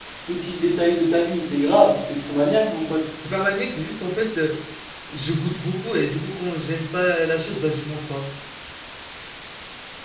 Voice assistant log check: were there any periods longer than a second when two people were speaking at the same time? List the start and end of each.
none

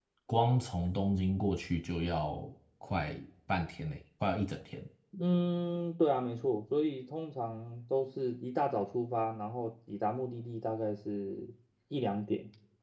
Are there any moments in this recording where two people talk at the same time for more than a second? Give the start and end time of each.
none

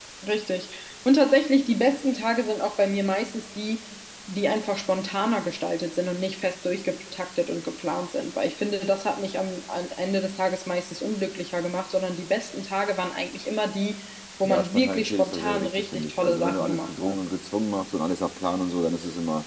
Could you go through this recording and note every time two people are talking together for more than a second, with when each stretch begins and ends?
14.4-17.2

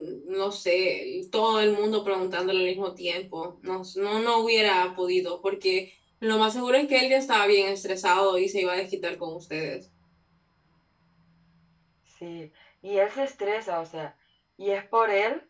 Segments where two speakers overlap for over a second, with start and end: none

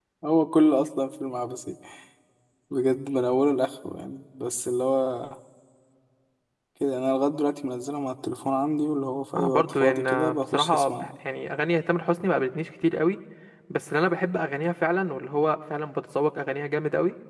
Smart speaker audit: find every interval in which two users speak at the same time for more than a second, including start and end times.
9.4-11.1

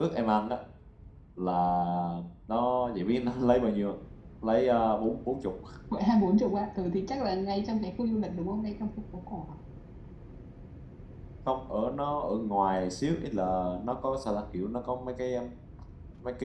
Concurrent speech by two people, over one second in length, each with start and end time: none

